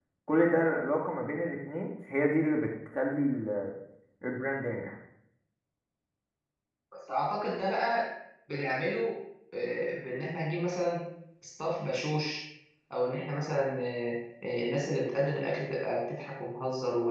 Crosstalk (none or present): none